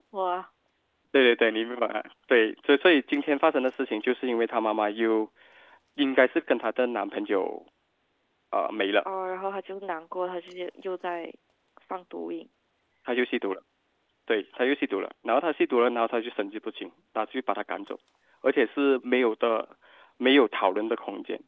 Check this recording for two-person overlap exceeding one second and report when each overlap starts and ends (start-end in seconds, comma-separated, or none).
none